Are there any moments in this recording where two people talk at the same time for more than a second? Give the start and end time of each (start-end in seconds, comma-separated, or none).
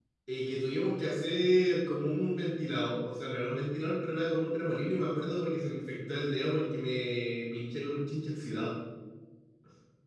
none